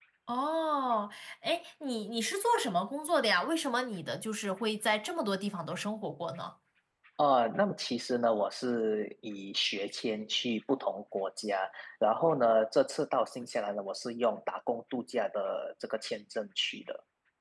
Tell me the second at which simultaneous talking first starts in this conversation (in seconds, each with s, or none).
none